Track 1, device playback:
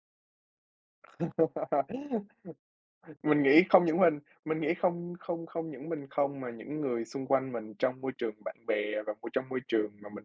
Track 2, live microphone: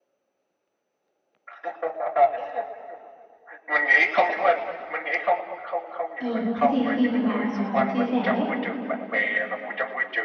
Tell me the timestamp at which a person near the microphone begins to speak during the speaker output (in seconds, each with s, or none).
6.2 s